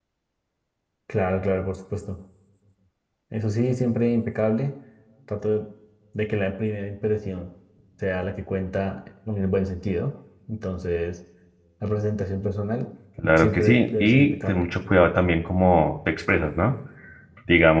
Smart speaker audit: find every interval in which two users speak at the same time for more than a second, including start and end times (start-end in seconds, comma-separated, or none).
13.4-14.6